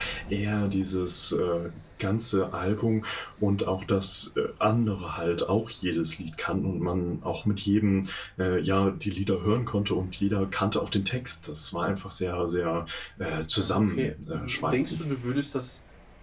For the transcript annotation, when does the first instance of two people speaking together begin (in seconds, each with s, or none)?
13.6 s